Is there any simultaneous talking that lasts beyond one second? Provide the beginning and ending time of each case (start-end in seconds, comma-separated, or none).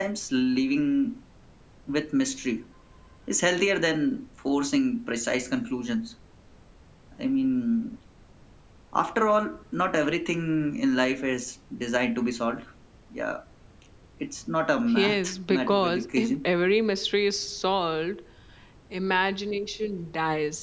14.9-16.4